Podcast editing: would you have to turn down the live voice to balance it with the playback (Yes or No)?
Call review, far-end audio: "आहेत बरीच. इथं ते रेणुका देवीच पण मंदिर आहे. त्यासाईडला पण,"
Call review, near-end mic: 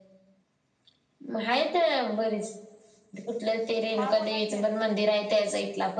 No